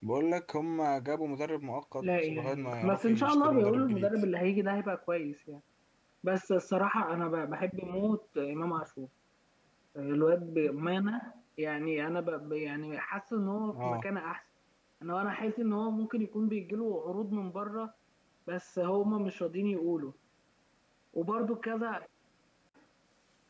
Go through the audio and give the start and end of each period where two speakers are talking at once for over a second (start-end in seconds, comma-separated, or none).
2.0-4.1